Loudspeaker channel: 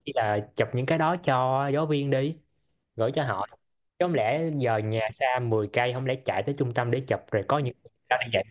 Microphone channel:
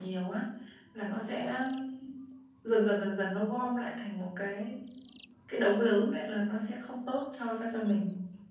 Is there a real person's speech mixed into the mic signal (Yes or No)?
Yes